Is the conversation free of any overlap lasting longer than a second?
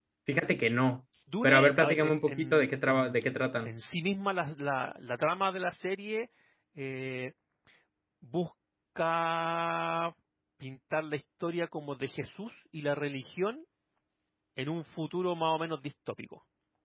No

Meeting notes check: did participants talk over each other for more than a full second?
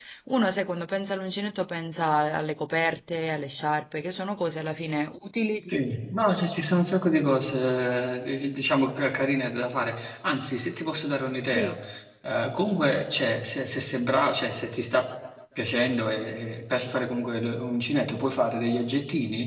No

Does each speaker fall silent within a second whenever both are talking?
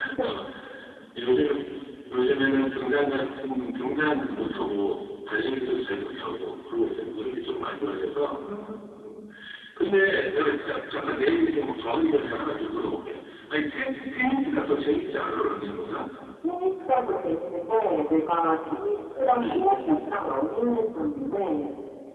Yes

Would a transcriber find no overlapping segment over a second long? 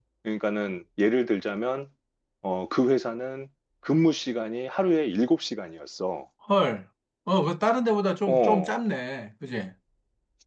Yes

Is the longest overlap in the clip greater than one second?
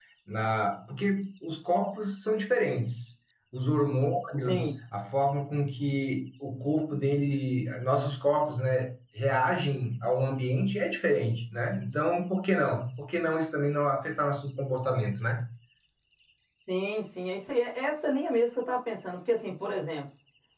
No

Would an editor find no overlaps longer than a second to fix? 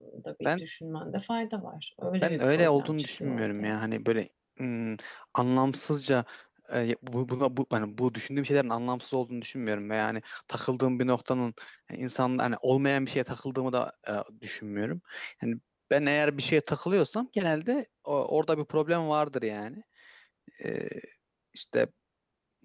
No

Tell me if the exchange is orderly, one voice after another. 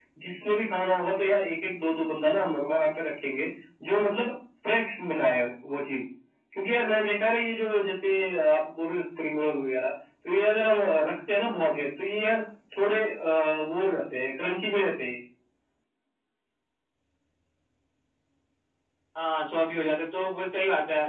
Yes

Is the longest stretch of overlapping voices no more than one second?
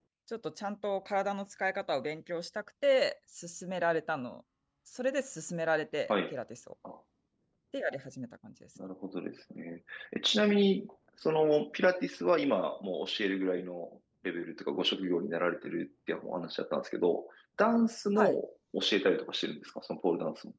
Yes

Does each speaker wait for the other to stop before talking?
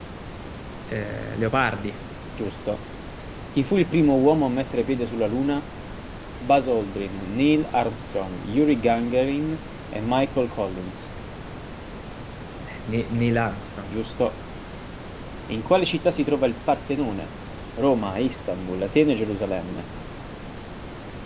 Yes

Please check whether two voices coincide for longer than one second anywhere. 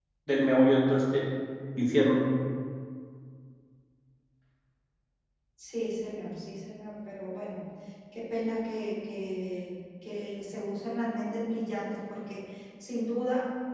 No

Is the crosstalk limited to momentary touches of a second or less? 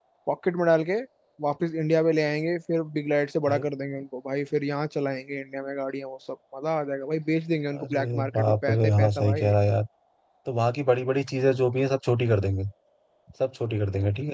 No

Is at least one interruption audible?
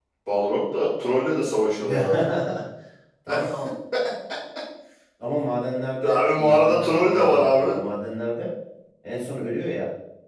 Yes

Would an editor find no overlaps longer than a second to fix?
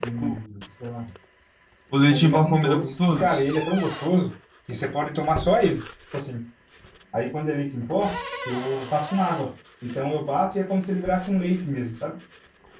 No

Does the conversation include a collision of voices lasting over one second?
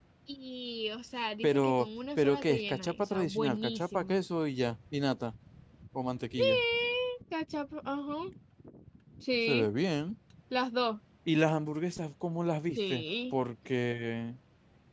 Yes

